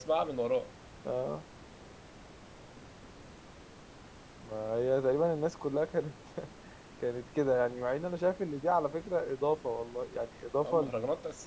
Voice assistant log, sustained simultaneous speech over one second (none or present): none